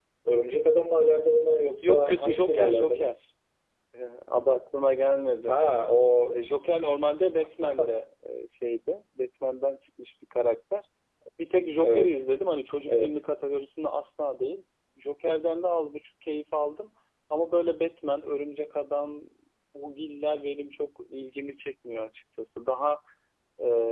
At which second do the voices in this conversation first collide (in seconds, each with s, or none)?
1.8 s